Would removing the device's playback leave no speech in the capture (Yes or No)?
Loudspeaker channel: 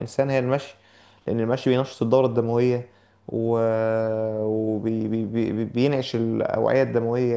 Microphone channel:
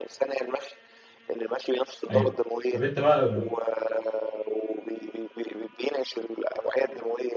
No